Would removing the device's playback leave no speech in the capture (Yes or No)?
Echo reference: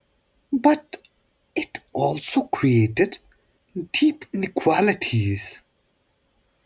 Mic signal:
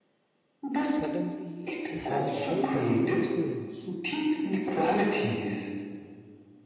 No